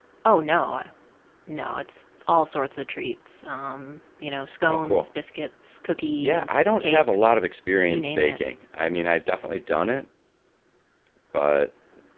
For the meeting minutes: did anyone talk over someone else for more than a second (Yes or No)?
Yes